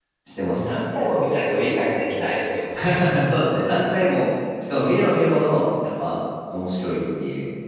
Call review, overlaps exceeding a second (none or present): none